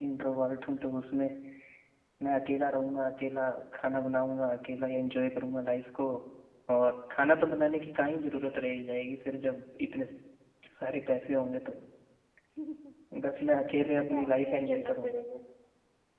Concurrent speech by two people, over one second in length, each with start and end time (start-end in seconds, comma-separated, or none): 13.8-15.2